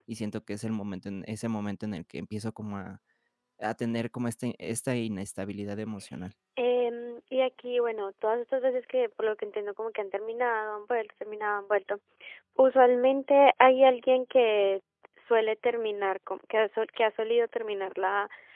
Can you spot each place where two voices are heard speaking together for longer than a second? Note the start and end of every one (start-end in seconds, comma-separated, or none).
none